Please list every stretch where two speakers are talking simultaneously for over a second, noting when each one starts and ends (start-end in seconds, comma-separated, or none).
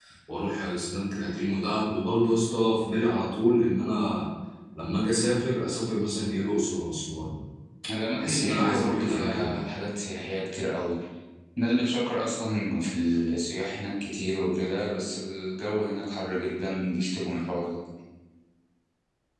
8.2-9.6